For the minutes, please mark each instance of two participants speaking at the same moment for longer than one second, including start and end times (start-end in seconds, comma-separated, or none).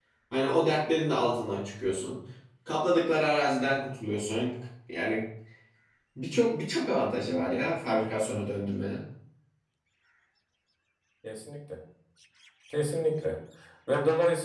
none